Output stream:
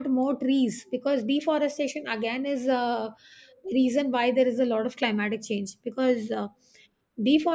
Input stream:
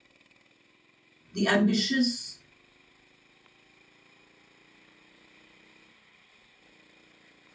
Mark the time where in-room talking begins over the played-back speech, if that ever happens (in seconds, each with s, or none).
1.3 s